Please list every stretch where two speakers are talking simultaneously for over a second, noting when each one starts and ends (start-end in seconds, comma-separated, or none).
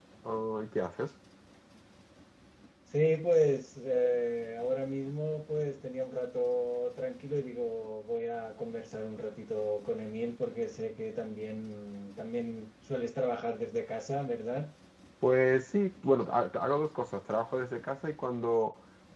none